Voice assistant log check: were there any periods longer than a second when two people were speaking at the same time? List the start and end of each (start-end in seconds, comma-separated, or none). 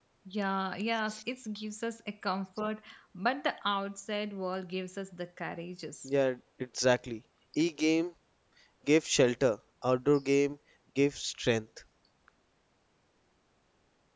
none